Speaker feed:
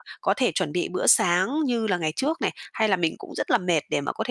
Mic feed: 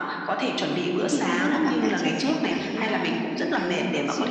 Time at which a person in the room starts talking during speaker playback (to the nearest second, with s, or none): 1 s